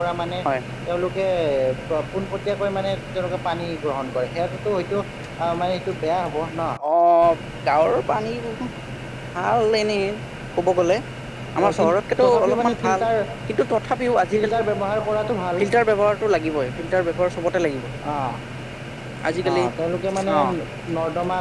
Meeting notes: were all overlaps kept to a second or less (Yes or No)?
No